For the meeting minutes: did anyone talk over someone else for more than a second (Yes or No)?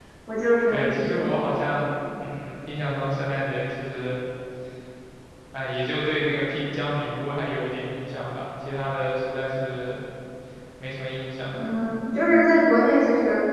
No